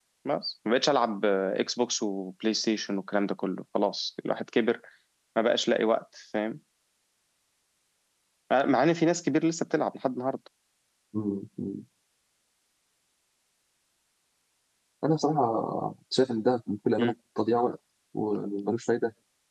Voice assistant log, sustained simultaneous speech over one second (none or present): none